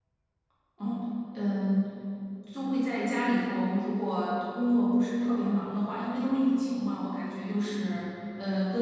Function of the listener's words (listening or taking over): listening